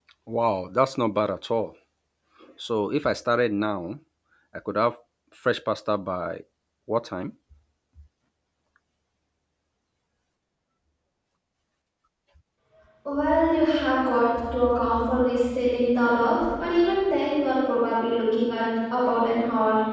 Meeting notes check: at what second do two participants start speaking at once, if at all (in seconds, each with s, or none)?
none